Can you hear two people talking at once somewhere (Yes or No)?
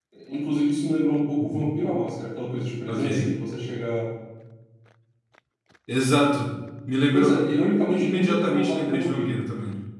Yes